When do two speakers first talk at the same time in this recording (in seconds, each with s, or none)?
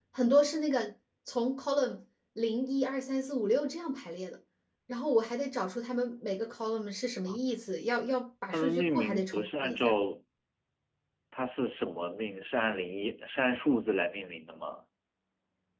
8.5 s